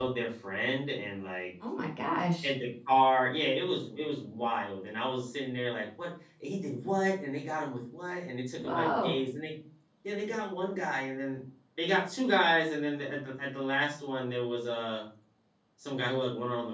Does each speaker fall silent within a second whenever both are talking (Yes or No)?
Yes